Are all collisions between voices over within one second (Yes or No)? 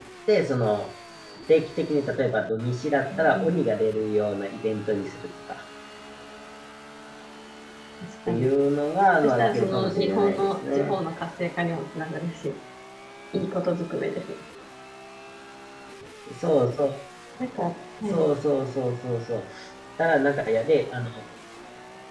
No